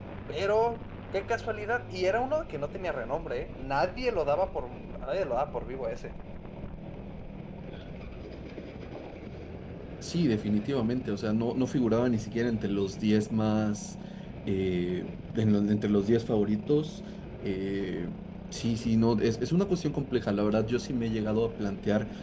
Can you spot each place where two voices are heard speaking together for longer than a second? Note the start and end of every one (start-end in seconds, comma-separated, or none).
none